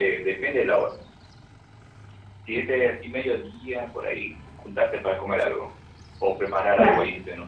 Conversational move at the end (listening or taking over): listening